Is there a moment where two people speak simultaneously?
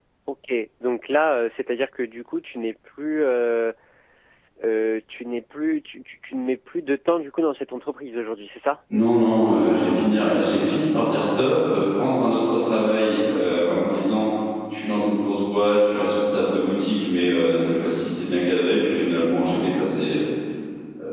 No

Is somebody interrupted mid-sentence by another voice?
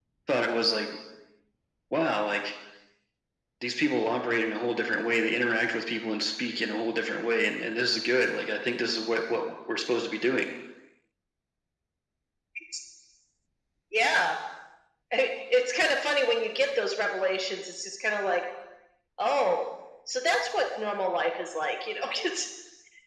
No

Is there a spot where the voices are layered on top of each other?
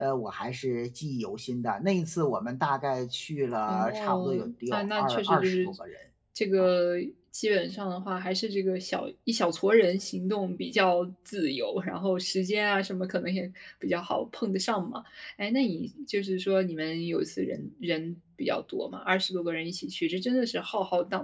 Yes, from 3.7 s

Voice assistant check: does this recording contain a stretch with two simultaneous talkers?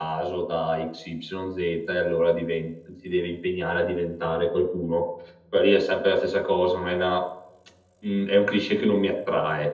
No

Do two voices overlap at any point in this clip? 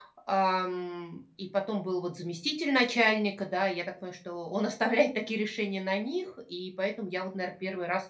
No

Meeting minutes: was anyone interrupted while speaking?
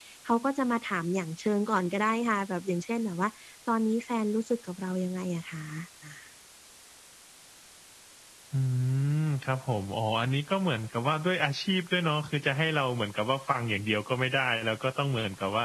No

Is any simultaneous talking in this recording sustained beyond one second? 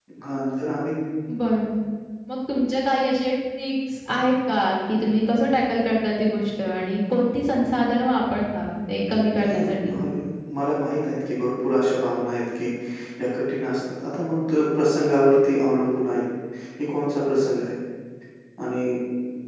No

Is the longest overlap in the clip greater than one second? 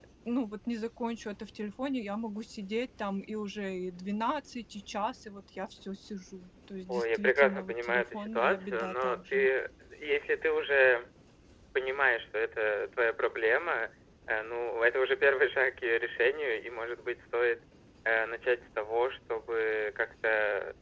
Yes, from 6.9 s

